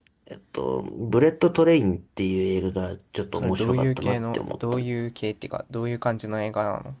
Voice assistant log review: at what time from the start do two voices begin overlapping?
3.4 s

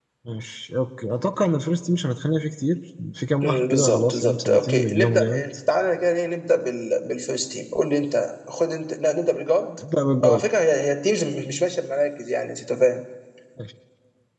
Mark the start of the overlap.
3.4 s

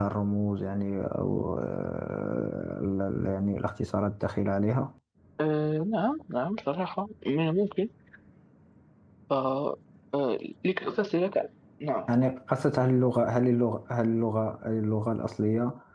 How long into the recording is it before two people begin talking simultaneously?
none

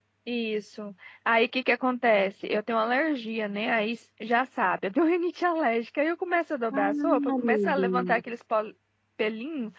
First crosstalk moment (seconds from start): 6.7 s

